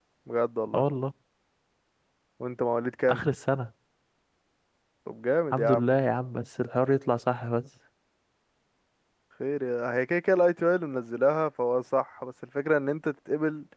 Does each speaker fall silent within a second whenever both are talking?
Yes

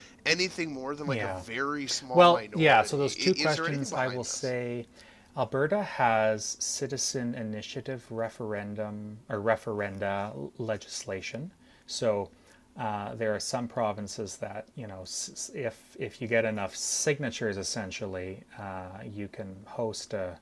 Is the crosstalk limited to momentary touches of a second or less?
No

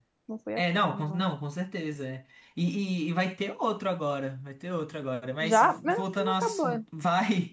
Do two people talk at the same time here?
Yes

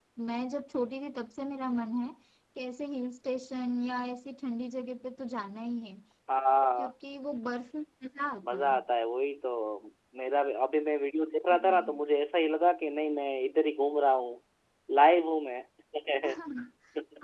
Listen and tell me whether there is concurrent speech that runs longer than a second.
No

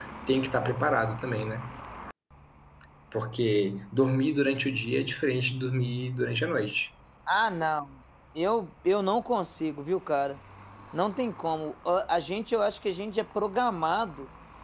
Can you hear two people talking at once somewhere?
No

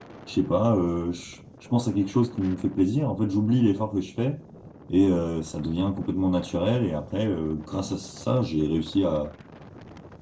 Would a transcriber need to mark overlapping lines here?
No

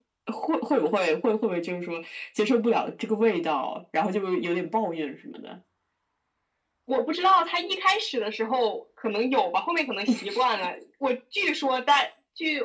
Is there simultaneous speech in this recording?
No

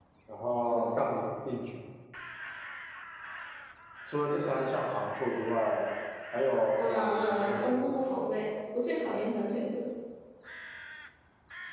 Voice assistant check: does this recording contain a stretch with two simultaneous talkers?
Yes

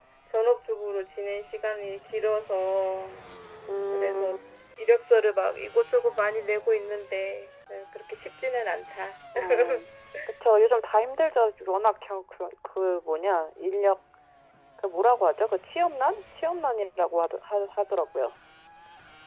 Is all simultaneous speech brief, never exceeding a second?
Yes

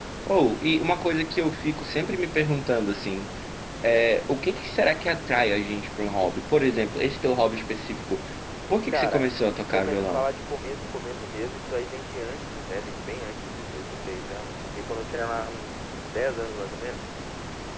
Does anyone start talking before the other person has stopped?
Yes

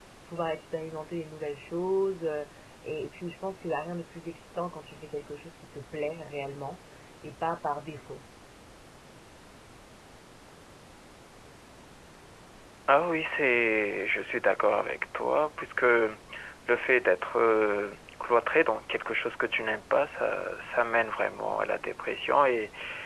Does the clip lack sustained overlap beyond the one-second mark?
Yes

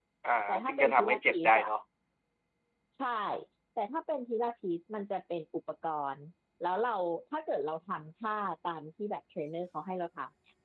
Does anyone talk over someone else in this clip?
Yes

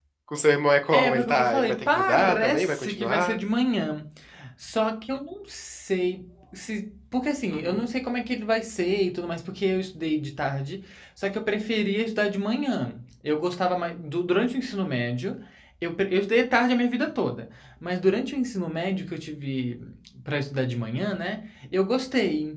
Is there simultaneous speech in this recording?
Yes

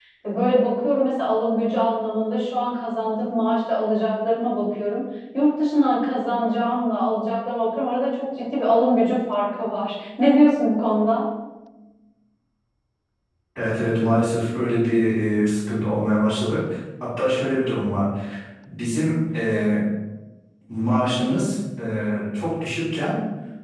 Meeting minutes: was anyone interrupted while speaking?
No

